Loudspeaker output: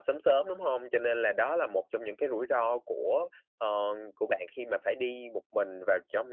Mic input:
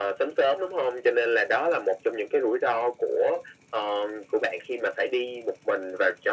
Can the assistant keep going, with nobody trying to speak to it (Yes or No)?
Yes